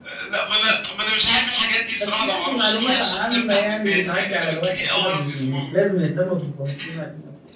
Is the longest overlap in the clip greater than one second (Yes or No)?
Yes